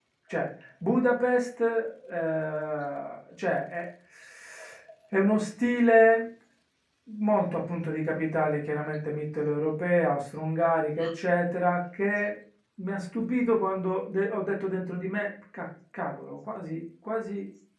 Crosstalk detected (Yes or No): No